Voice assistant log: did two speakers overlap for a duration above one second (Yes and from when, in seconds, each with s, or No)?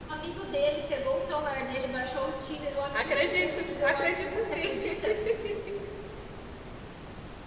Yes, from 2.9 s